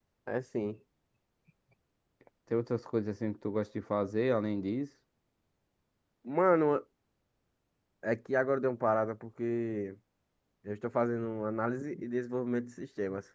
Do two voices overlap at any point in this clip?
No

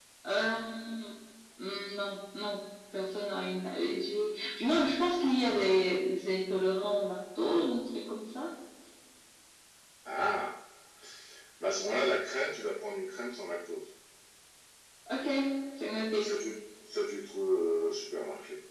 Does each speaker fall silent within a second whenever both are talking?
Yes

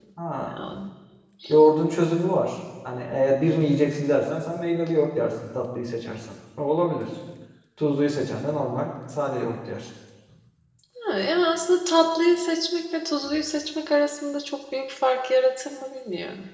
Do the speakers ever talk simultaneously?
No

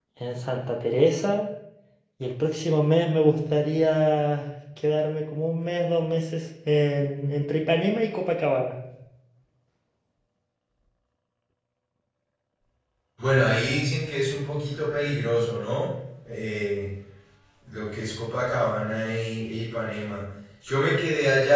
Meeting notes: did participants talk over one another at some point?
No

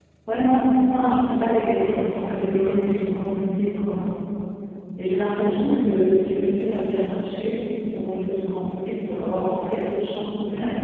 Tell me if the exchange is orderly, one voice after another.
No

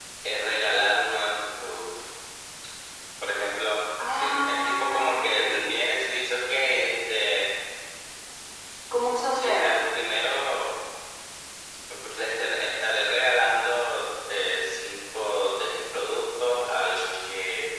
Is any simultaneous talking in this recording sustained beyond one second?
Yes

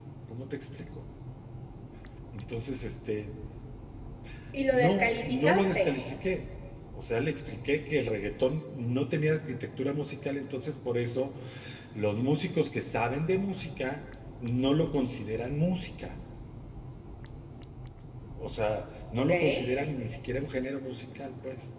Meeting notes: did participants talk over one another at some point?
Yes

